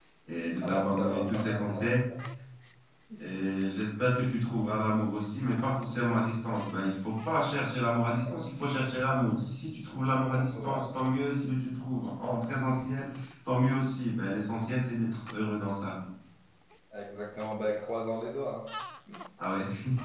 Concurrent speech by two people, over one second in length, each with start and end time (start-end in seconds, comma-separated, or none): 0.6-1.8